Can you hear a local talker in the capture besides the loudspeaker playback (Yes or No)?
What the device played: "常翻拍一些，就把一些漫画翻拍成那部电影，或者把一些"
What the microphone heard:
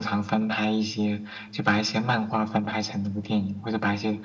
No